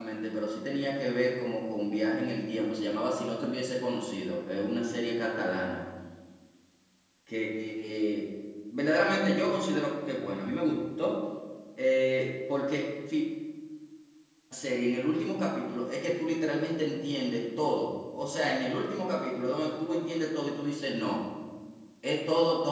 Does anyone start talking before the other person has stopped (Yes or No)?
No